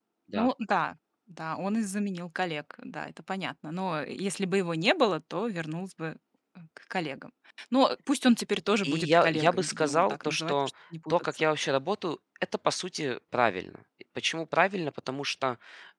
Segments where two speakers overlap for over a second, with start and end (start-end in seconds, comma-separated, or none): 8.8-10.5